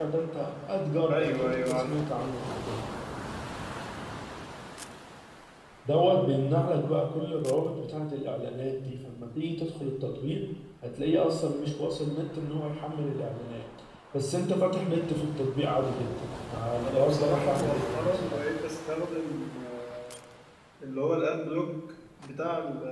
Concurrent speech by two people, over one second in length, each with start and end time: 1.1-2.3, 16.8-18.4

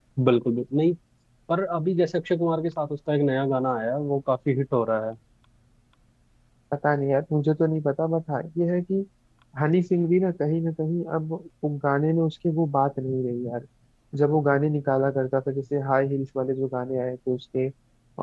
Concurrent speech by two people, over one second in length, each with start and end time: none

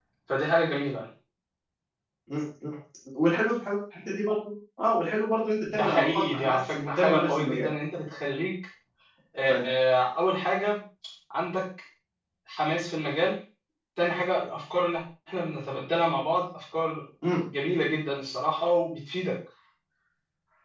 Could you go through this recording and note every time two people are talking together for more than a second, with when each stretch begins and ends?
5.7-7.7

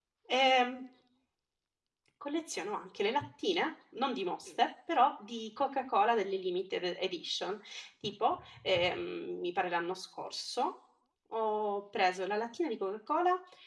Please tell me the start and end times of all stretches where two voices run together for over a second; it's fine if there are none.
none

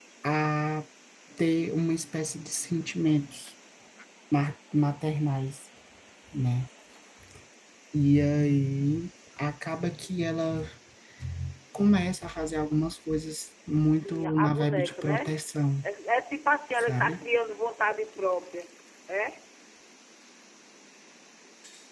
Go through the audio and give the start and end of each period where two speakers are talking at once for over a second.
14.0-15.4

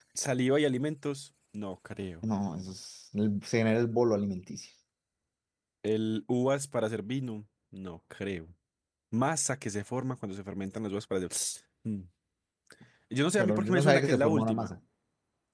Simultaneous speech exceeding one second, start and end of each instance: 13.4-14.7

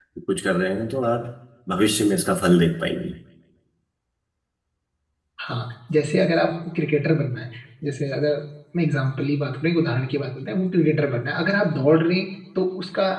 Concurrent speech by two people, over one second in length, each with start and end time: none

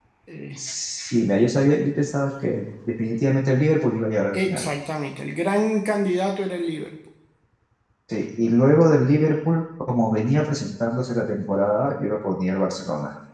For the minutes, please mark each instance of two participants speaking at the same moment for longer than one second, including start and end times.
none

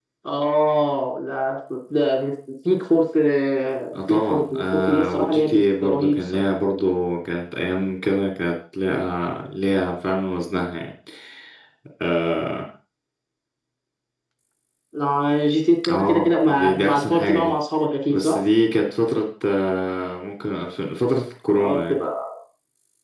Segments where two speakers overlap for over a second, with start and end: 4.1-6.4, 15.9-17.5

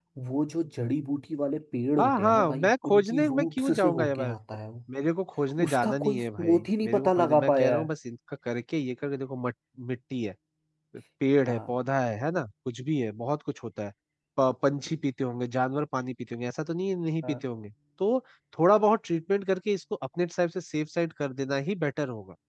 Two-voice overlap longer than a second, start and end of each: 2.0-4.3, 5.6-7.9

